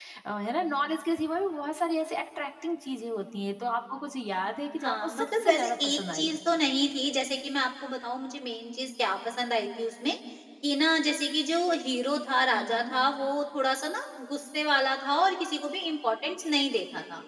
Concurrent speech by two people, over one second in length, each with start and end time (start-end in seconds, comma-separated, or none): 4.8-6.4